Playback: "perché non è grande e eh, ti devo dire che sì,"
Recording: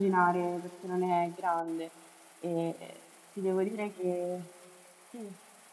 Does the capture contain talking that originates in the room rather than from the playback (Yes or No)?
No